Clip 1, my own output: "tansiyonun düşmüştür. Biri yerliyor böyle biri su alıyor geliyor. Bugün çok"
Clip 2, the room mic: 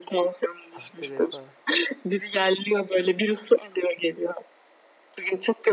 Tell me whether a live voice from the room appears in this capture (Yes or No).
Yes